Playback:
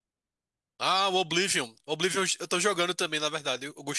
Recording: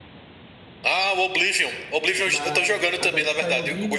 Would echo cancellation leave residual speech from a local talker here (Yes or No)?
Yes